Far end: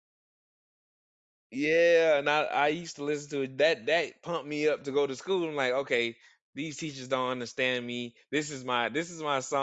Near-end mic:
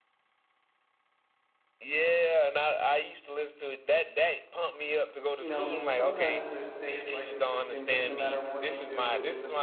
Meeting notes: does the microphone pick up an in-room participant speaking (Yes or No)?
Yes